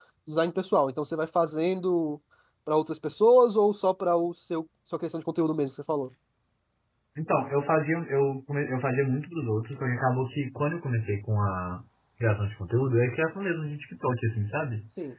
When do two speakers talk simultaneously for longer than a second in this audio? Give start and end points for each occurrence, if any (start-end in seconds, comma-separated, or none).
none